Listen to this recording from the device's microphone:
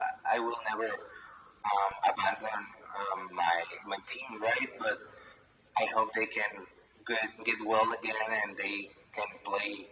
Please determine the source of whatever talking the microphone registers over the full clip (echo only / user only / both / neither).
echo only